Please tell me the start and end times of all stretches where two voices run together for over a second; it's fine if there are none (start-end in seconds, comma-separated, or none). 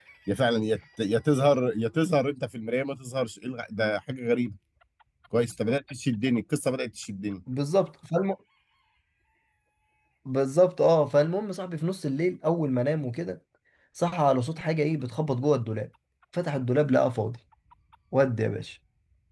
none